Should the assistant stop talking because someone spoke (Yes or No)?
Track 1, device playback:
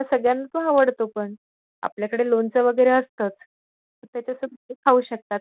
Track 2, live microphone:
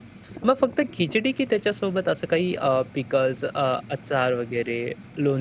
Yes